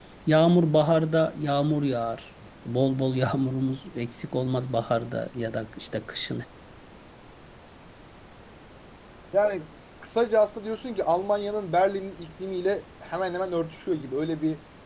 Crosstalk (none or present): none